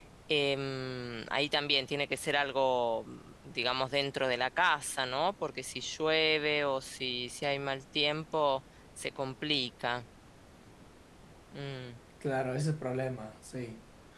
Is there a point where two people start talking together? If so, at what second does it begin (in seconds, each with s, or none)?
none